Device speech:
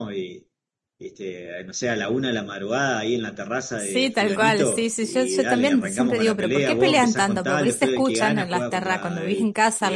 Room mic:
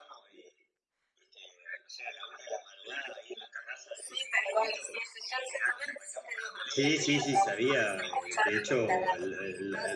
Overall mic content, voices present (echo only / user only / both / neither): both